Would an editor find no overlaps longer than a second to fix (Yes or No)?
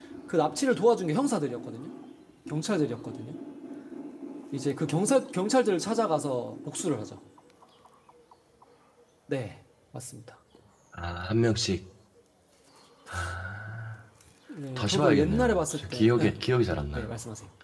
No